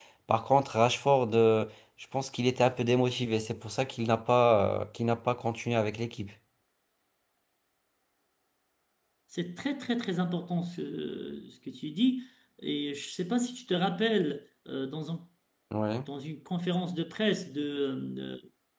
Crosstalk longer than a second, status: none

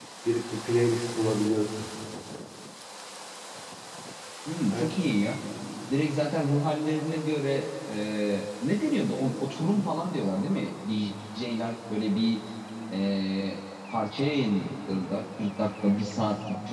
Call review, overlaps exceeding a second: none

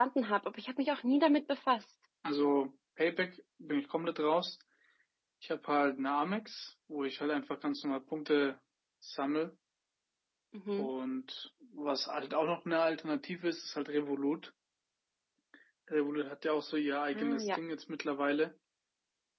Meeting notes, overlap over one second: none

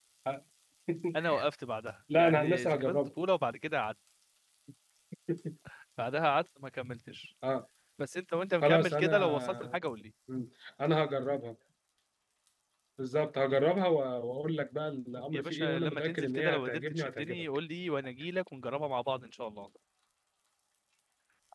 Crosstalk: present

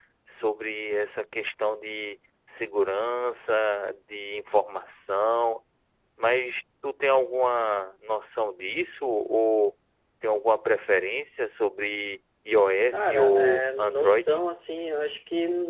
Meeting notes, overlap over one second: present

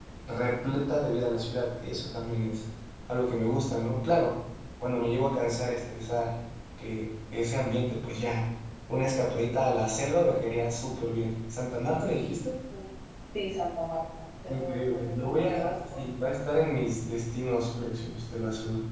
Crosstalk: present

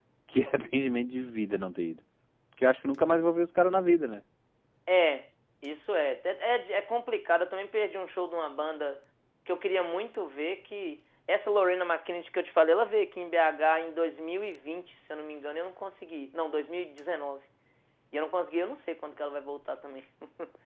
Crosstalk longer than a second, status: none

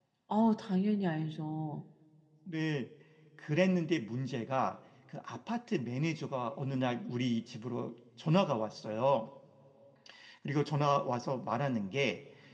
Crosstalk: none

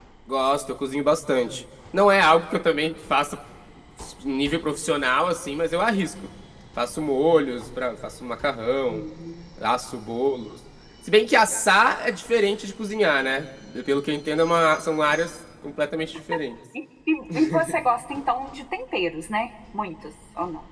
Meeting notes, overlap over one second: none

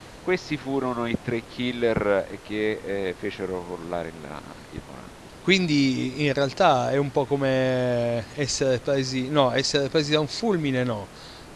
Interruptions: none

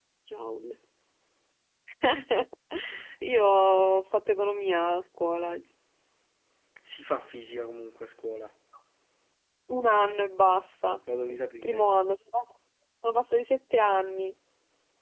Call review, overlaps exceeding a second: none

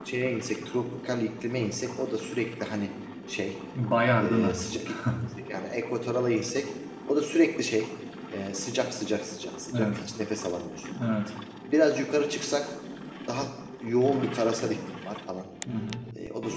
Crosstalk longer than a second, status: none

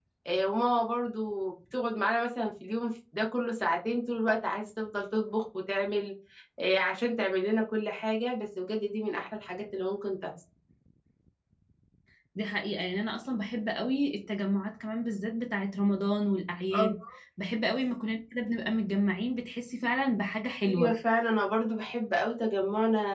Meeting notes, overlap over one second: none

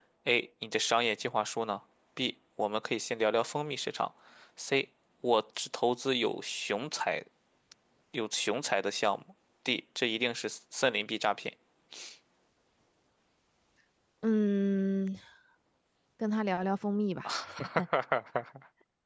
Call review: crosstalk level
none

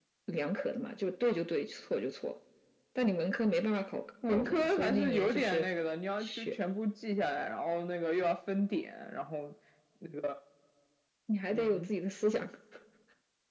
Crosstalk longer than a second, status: present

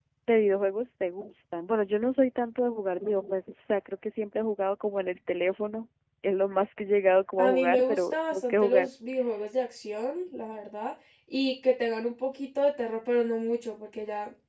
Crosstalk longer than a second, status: present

